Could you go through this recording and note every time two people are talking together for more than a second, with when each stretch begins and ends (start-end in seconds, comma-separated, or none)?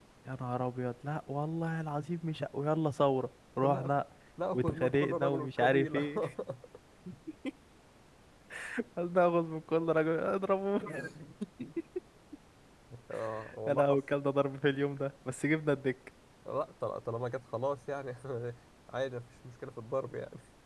4.5-6.1